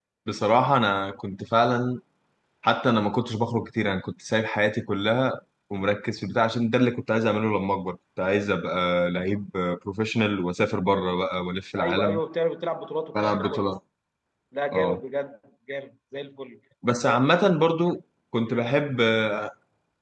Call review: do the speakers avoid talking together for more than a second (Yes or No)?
Yes